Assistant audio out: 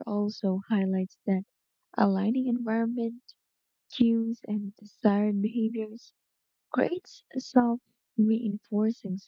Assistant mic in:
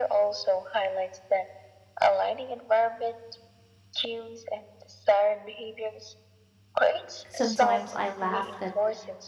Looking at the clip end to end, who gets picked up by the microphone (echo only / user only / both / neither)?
both